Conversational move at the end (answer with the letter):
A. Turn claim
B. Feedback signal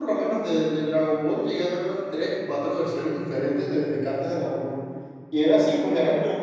B